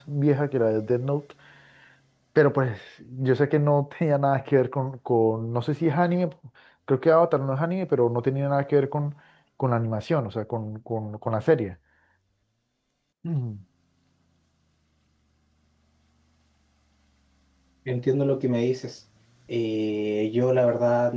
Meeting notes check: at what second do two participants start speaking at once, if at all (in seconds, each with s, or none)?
none